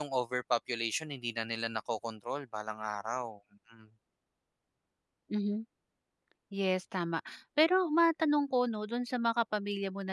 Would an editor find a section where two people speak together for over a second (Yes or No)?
No